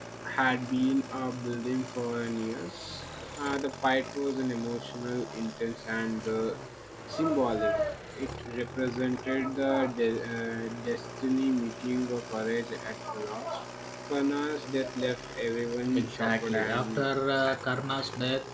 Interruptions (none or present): present